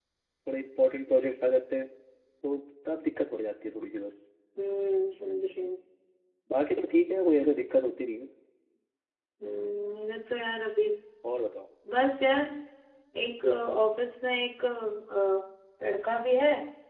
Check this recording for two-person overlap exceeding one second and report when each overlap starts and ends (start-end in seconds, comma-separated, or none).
none